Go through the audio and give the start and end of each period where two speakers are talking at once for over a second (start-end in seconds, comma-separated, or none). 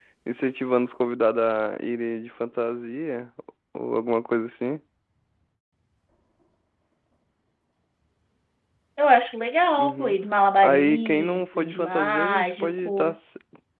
10.6-13.1